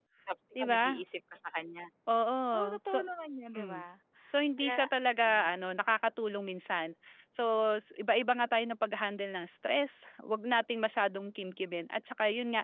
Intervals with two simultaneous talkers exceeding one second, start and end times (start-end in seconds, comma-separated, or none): none